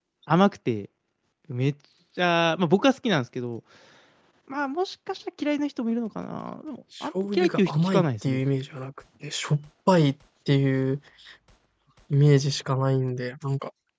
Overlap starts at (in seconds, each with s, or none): 7.0 s